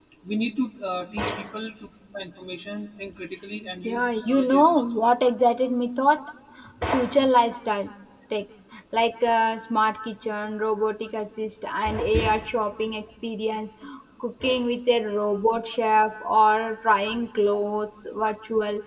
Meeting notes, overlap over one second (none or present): present